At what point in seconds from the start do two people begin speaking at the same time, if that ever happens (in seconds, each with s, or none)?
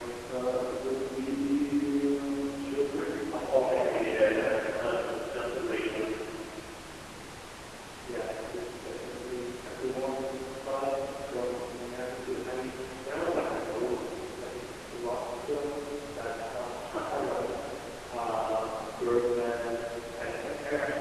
3.4 s